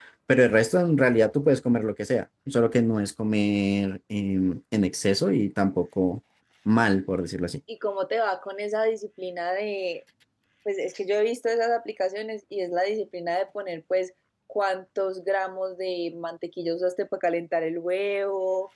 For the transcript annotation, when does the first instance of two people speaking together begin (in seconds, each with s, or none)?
none